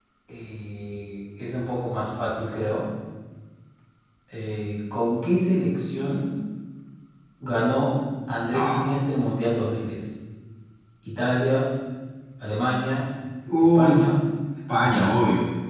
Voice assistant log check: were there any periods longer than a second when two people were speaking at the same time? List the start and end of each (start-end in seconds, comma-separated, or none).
none